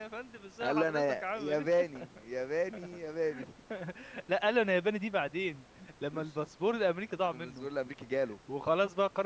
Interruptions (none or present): present